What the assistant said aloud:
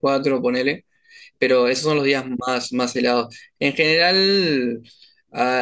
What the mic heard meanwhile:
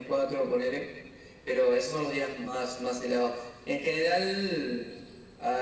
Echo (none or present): present